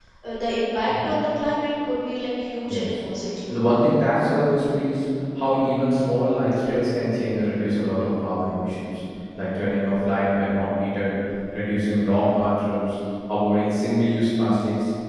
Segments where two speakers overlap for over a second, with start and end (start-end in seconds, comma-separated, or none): none